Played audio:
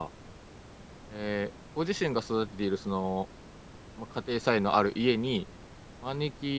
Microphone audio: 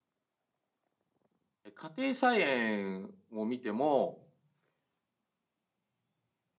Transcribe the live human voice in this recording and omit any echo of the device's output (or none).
え家庭菜園を見ても、